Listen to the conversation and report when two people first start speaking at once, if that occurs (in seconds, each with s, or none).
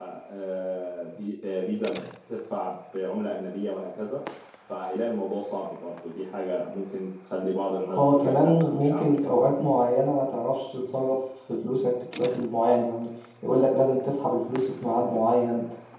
7.8 s